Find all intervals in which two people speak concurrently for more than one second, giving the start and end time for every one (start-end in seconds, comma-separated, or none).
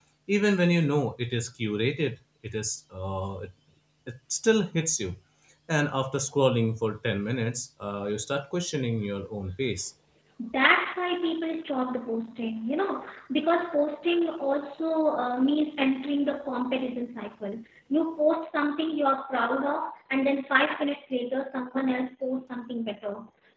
none